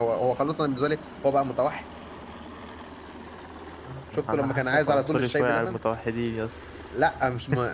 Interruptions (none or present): present